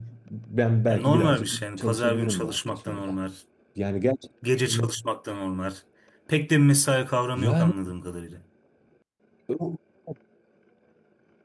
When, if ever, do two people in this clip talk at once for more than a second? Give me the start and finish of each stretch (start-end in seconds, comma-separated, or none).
0.9-3.1